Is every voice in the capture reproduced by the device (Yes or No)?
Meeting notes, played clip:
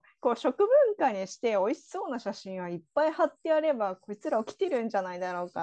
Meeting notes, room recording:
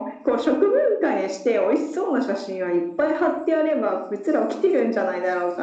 Yes